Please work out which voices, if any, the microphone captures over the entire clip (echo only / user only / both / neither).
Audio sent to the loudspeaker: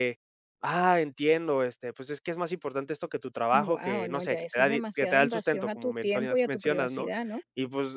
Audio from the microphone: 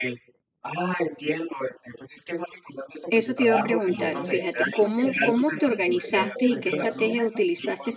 both